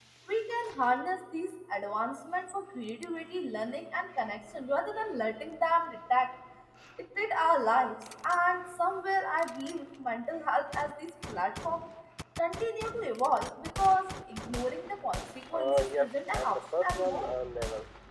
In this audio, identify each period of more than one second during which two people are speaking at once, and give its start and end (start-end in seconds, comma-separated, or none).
15.5-17.3